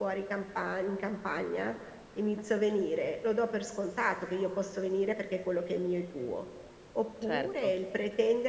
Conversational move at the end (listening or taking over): listening